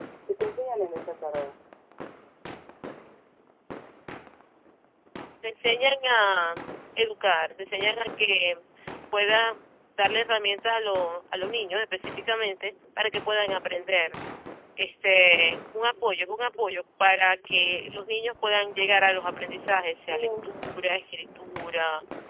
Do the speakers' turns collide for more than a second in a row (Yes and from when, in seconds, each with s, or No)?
No